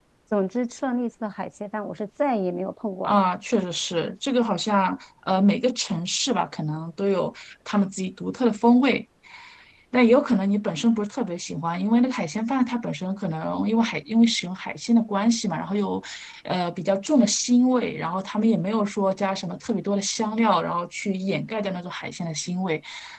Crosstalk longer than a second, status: none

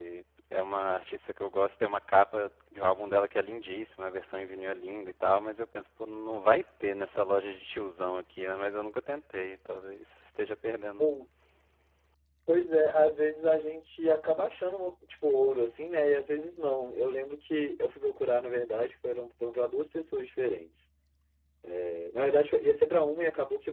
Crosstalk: none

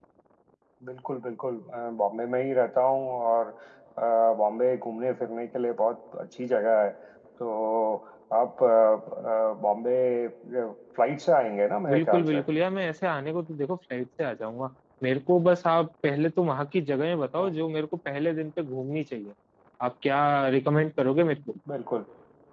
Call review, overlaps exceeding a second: none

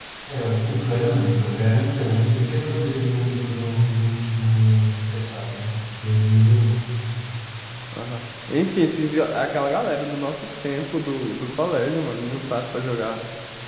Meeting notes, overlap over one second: none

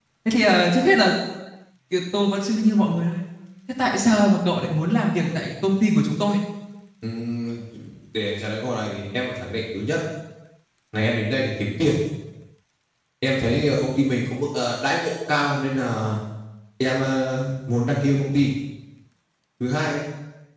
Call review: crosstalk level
none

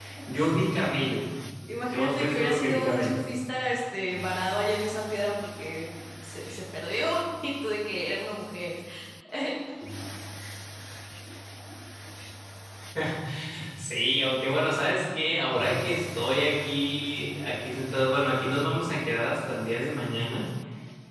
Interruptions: present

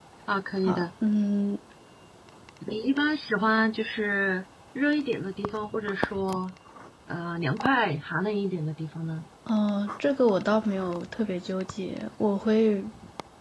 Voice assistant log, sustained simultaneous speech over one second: none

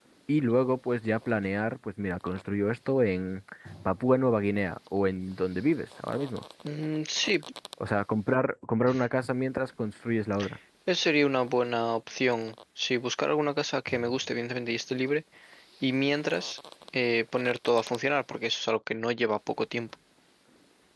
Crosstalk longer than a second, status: none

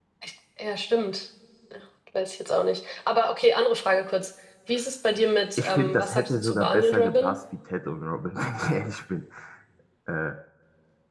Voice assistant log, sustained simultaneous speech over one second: present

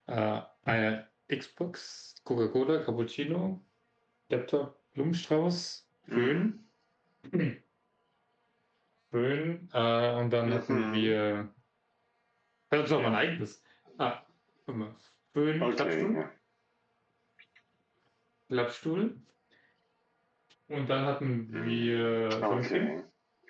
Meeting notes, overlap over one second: present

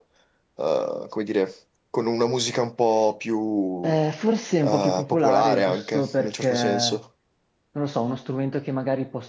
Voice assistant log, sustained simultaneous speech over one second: present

